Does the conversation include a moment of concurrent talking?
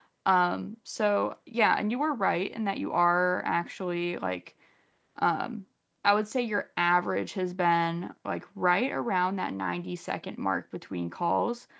No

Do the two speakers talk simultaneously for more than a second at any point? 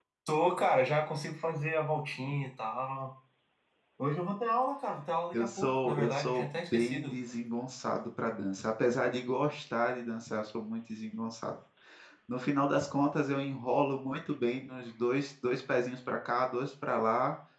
Yes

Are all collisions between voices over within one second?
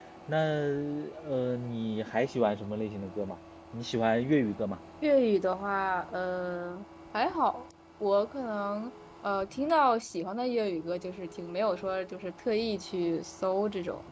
Yes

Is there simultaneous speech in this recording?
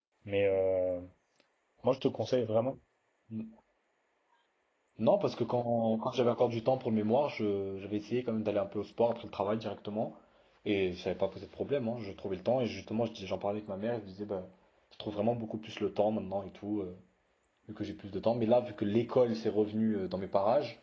No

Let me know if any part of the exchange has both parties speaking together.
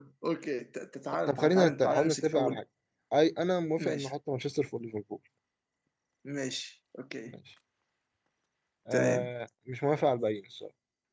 Yes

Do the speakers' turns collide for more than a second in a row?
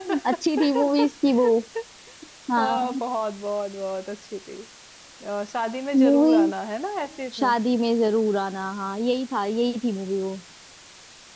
No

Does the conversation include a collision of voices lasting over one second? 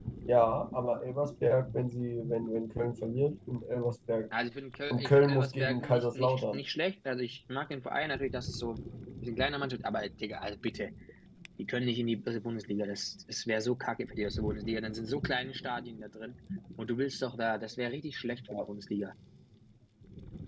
Yes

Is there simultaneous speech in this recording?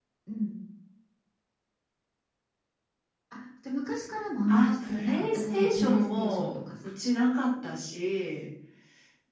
Yes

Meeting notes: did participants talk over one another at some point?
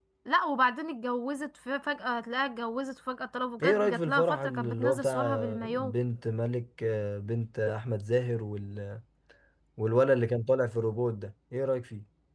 Yes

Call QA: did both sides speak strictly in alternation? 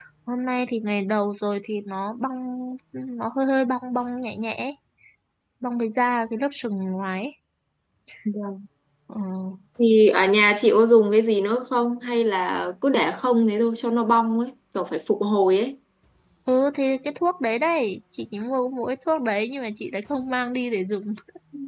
Yes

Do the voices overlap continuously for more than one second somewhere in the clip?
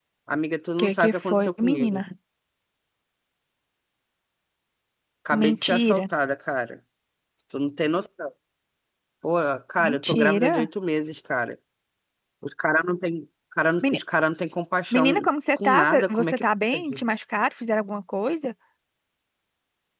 Yes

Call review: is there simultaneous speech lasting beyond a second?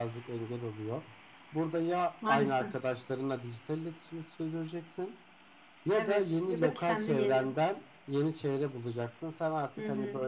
Yes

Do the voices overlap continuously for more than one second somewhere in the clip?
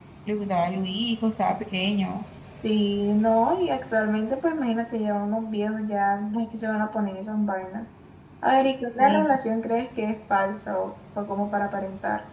No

